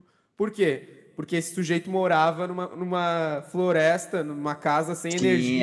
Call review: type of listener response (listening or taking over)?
taking over